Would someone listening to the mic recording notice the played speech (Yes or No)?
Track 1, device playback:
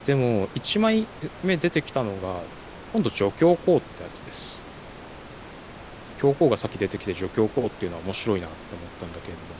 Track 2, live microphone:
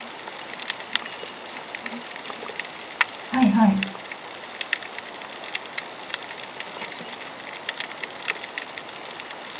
No